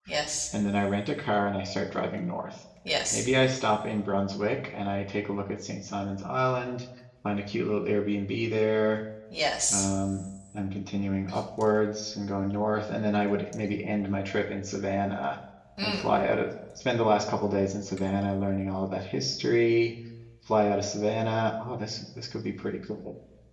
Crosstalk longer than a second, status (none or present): none